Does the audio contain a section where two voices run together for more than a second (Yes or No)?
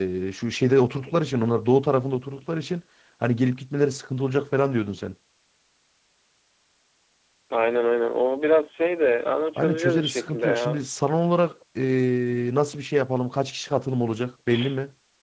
Yes